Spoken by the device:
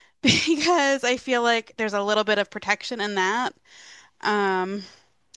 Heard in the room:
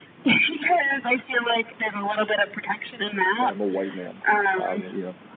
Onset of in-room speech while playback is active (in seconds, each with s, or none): 3.4 s